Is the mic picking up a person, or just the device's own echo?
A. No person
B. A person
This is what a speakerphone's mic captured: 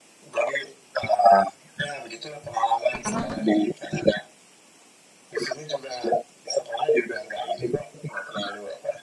B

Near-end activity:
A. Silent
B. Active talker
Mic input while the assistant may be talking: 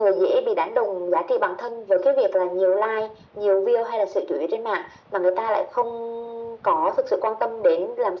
A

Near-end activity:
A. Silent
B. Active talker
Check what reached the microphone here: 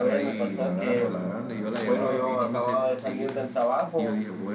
B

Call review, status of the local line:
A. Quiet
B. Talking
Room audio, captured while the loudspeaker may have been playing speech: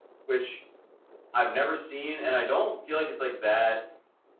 A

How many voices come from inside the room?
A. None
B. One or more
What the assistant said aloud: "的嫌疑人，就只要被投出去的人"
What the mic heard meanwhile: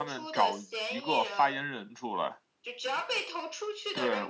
B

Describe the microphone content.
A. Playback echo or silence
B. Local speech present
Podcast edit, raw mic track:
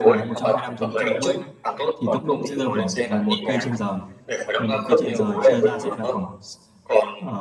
B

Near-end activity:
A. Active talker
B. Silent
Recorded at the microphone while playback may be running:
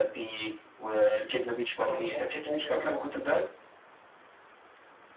A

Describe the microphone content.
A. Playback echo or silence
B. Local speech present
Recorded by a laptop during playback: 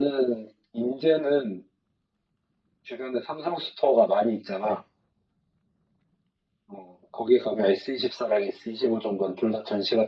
A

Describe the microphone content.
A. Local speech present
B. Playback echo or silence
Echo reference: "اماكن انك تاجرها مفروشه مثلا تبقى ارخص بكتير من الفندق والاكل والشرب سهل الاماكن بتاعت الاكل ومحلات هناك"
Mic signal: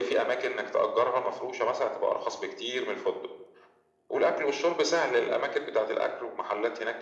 B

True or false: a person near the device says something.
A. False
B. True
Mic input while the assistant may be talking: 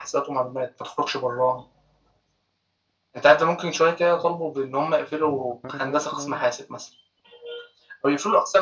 B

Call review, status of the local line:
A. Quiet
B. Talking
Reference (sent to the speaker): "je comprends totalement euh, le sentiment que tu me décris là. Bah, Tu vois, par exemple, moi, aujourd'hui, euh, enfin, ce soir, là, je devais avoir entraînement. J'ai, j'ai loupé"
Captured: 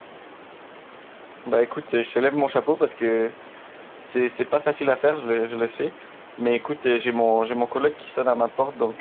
B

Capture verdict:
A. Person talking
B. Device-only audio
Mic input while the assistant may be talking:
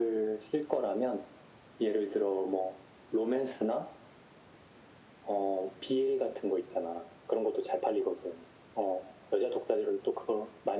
B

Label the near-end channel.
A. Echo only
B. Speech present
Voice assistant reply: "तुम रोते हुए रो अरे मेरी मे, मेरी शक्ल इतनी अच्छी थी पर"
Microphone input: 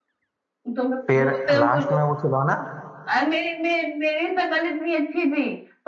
B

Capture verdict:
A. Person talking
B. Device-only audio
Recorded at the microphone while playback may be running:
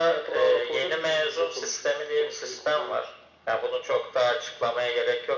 B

